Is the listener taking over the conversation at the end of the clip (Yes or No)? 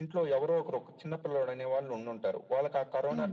No